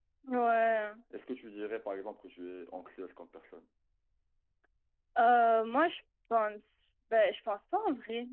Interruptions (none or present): none